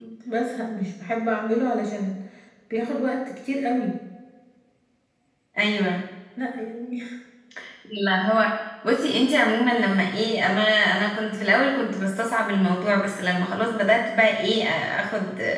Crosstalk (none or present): none